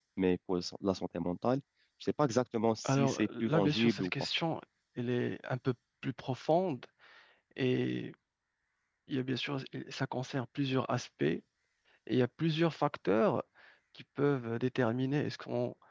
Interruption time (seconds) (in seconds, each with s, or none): 2.8 s